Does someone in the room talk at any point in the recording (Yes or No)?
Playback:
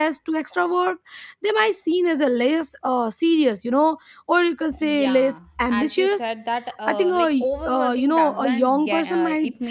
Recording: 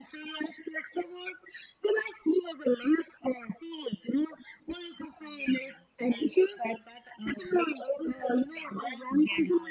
No